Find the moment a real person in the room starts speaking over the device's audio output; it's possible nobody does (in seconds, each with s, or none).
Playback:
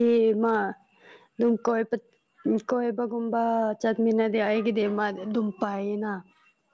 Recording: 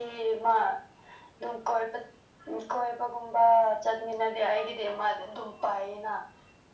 none